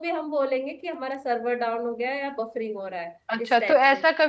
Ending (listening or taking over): taking over